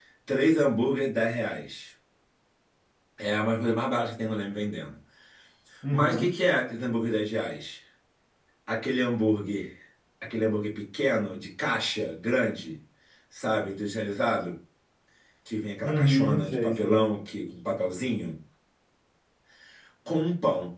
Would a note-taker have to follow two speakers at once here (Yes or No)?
Yes